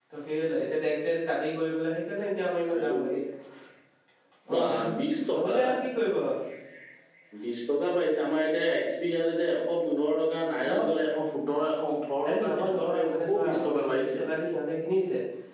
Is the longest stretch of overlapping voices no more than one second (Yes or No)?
No